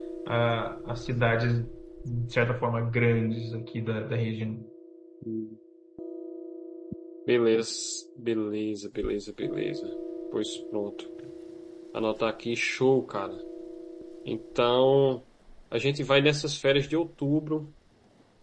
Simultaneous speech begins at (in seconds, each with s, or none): none